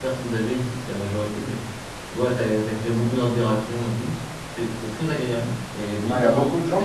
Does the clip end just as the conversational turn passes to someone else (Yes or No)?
Yes